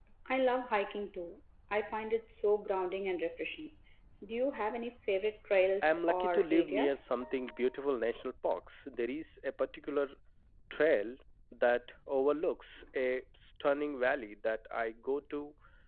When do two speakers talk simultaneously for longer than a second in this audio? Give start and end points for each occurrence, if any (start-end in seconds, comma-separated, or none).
5.8-7.0